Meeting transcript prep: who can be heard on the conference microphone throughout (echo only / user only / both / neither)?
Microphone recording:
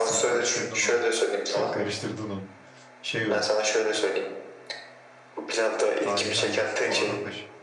both